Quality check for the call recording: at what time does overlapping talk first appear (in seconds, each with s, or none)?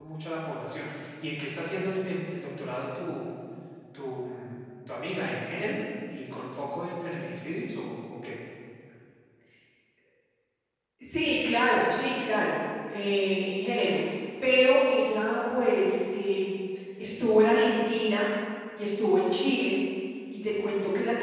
none